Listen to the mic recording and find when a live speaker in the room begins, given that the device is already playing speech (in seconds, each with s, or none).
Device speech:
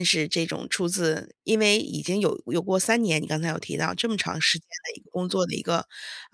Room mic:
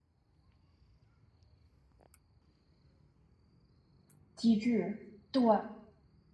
4.4 s